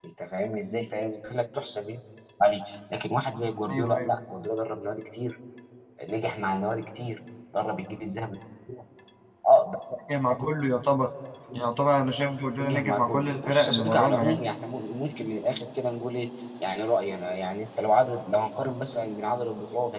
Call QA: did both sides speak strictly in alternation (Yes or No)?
No